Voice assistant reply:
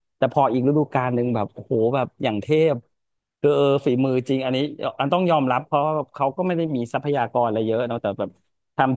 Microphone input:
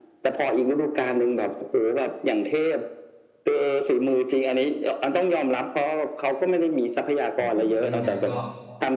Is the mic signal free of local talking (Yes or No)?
No